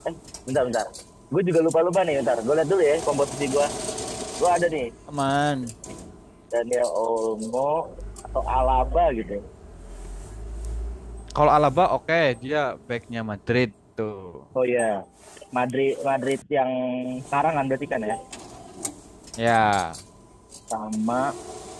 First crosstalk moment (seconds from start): none

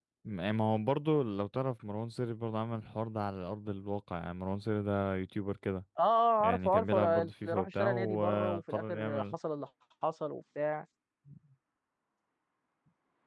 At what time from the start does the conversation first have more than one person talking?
6.4 s

